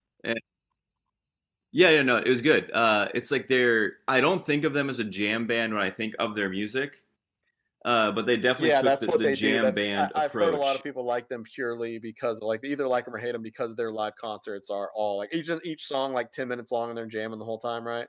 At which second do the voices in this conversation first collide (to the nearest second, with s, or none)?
9 s